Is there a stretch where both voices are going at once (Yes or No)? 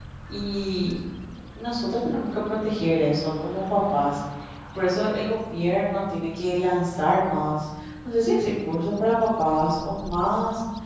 No